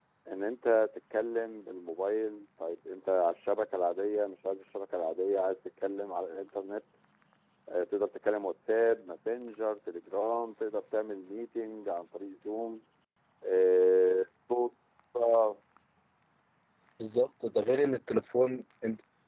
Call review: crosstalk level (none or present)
none